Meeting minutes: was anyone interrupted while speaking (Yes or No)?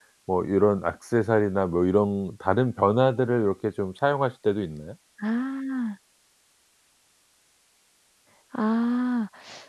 No